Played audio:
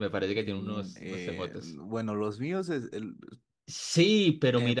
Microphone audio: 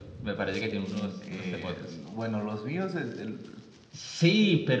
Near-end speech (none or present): present